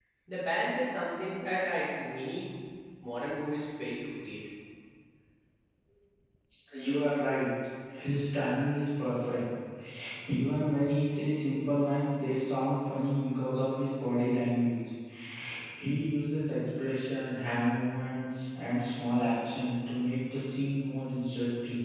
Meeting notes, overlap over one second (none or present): none